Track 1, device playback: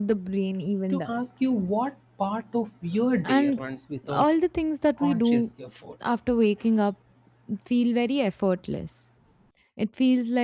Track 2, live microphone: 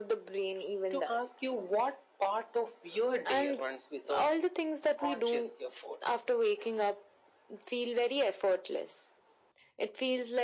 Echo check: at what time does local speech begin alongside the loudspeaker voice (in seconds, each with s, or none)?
none